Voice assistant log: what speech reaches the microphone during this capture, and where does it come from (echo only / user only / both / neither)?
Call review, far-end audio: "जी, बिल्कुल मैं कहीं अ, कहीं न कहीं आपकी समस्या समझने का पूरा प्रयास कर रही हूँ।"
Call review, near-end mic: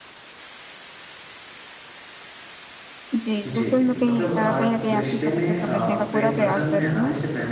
both